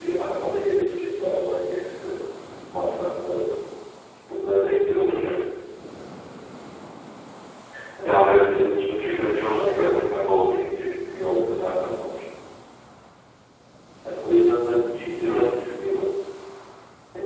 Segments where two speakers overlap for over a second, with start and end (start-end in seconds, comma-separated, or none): 8.9-10.5